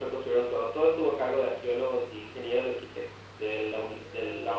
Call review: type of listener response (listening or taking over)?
taking over